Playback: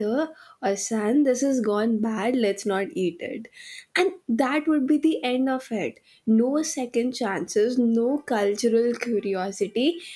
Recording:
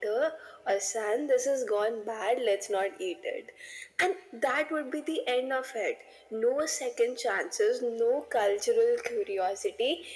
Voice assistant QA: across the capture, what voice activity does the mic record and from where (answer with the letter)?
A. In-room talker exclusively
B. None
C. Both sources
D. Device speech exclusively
D